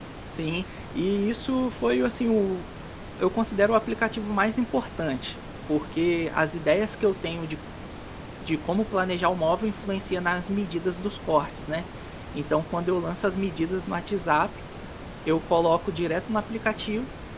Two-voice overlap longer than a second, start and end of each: none

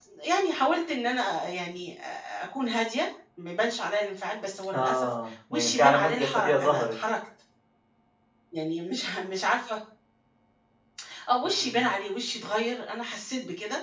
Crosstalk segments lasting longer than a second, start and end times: 5.5-6.9

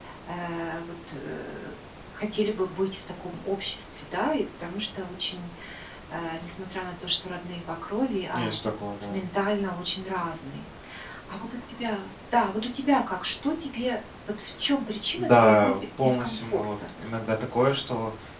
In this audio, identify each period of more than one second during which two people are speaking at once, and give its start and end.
15.2-16.7

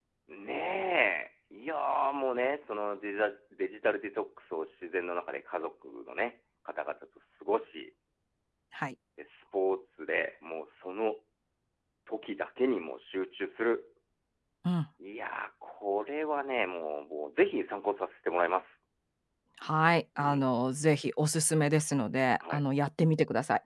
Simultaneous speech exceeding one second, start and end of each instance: none

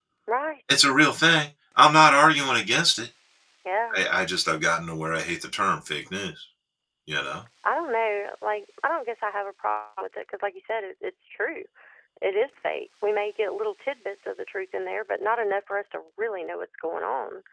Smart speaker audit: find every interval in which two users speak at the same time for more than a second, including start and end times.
none

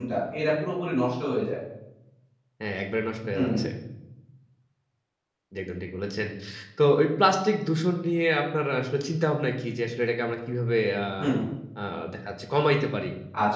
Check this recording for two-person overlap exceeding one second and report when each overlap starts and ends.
none

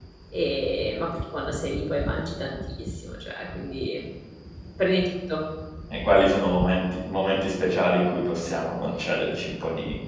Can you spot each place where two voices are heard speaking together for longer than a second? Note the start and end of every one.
none

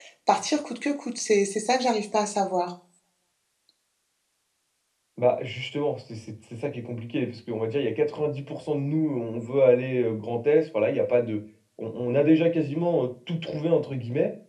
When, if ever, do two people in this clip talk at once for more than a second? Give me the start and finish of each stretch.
none

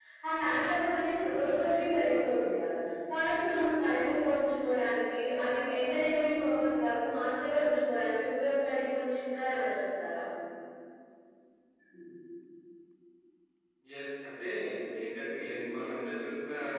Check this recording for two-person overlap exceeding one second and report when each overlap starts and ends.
none

